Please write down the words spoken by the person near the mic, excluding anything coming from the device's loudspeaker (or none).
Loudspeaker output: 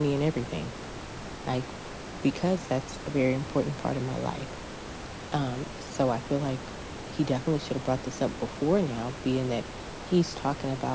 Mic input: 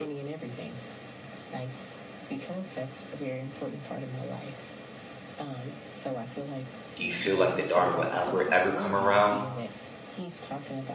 do you feel like the daughter will ever ever come around